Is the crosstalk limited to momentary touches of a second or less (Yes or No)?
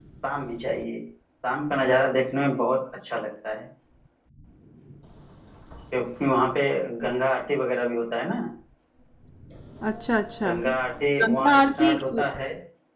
No